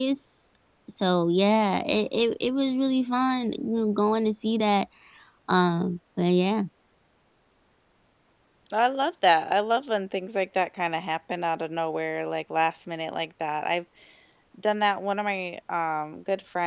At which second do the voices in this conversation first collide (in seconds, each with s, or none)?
none